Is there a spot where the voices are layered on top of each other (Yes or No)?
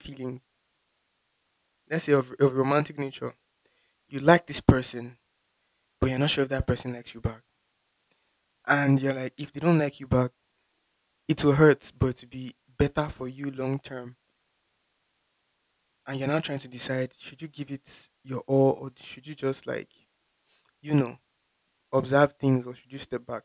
No